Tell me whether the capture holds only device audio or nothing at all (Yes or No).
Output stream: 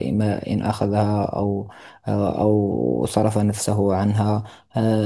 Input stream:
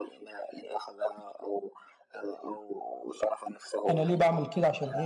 No